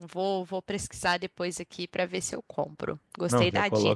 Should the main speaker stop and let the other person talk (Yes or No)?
Yes